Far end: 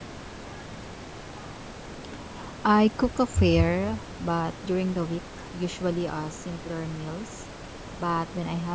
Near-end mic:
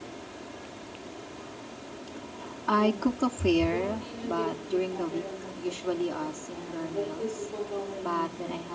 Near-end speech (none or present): present